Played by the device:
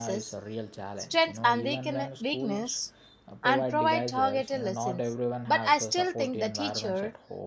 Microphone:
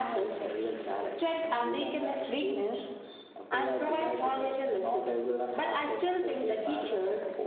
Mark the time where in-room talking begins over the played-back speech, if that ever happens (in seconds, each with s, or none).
none